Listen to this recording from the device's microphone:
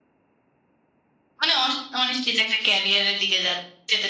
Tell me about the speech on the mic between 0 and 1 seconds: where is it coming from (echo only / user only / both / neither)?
neither